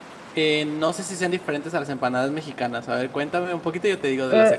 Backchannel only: No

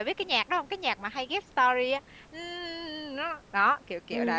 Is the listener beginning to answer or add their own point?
Yes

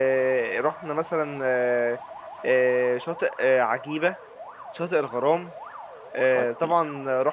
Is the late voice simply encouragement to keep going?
Yes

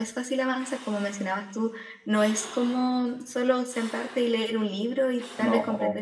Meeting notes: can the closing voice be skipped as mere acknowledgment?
Yes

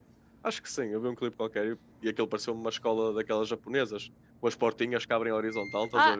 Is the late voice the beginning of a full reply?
Yes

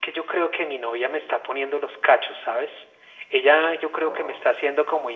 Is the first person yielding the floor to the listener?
No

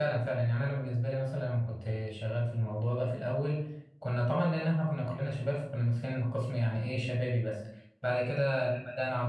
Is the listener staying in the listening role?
Yes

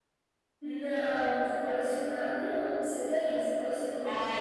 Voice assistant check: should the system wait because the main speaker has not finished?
No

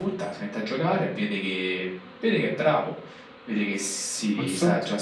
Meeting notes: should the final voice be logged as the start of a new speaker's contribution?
No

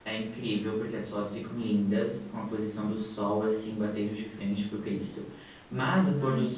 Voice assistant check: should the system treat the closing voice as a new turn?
No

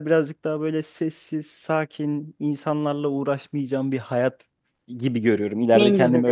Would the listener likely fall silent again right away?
Yes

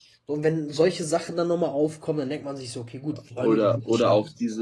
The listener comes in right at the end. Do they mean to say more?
Yes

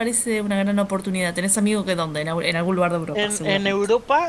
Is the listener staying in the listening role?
No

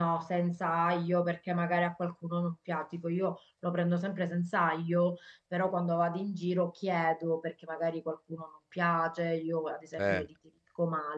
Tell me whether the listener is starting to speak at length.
No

